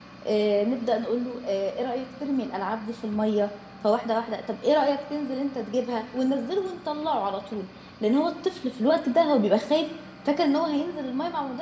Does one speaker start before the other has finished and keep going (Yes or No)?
No